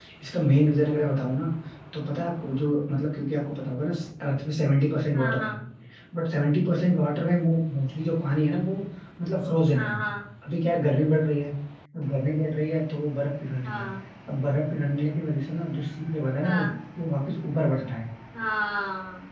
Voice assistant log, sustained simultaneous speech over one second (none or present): none